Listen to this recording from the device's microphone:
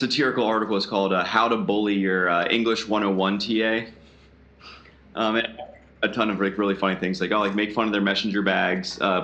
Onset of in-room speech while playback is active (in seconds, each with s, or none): none